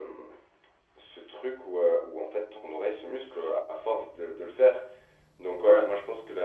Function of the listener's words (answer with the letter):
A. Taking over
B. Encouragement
B